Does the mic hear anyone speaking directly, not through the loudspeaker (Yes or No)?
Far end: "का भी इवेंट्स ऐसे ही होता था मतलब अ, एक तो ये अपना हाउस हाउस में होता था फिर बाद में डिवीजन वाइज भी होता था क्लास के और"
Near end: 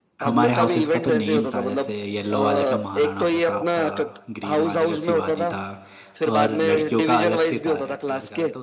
Yes